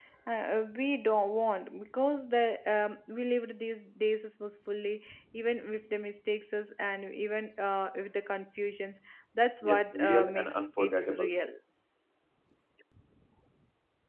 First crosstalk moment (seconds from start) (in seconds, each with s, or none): 9.6 s